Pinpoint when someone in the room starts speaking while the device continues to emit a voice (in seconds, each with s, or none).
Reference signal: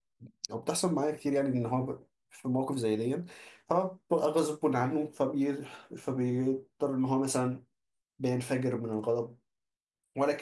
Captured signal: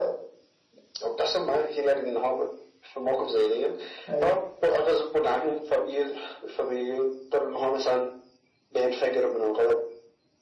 4.1 s